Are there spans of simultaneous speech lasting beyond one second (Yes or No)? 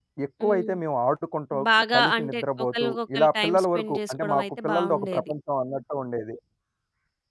Yes